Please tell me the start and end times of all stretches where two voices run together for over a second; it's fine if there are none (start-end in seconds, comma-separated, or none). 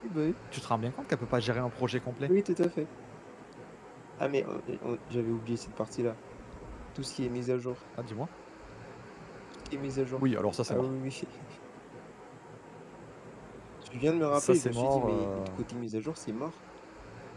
14.3-15.6